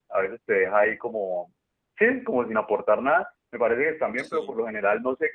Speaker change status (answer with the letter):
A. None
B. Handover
A